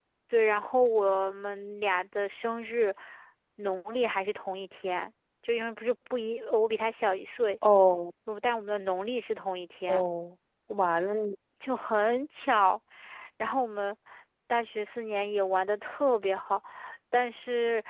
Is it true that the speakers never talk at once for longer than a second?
Yes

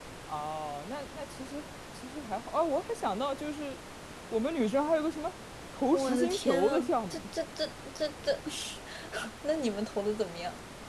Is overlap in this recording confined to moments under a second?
No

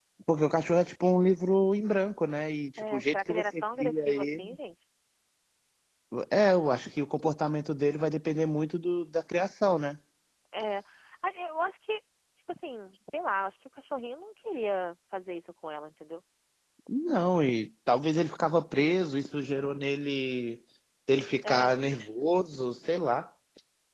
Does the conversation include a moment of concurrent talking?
Yes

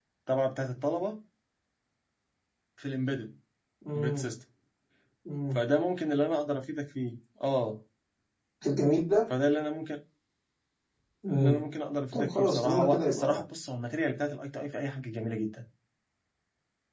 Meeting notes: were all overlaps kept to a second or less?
No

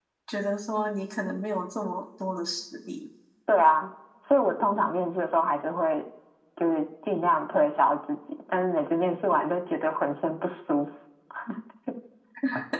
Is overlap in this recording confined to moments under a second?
Yes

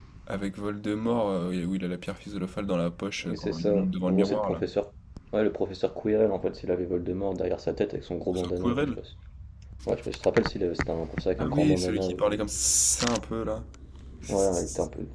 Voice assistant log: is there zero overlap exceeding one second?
No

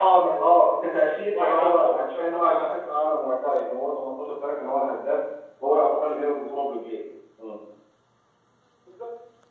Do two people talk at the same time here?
Yes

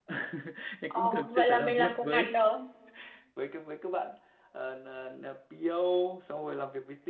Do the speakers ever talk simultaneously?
Yes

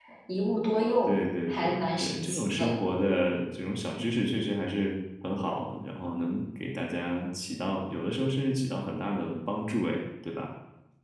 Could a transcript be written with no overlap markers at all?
No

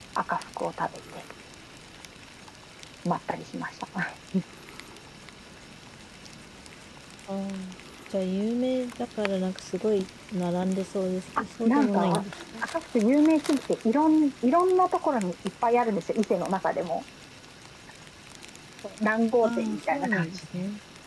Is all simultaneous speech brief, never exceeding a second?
No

